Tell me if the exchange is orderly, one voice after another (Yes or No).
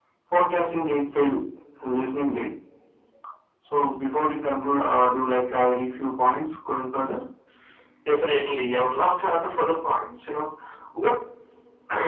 Yes